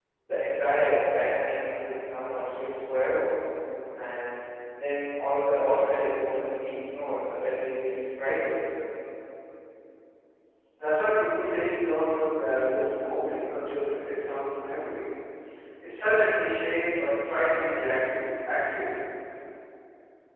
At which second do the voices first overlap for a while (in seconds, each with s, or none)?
none